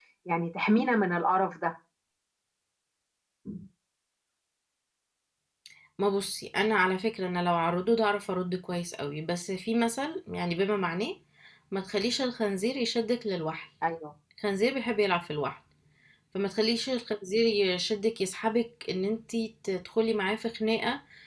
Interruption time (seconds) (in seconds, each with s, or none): none